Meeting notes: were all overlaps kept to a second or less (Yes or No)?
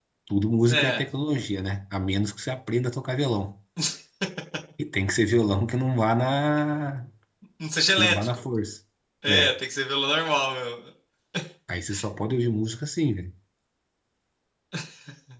Yes